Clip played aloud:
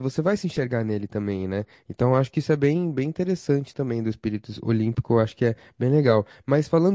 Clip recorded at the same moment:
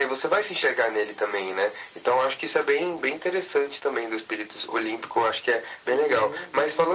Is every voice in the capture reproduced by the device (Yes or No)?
No